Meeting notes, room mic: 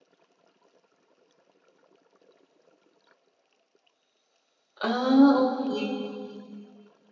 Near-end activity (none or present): present